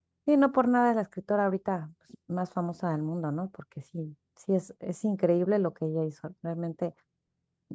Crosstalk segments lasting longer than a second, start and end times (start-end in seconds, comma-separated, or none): none